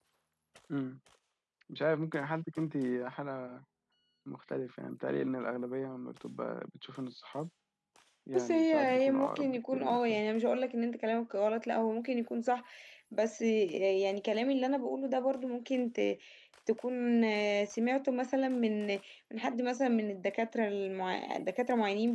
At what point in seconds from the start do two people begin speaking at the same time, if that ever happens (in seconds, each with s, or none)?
8.3 s